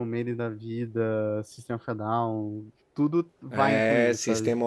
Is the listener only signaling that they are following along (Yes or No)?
No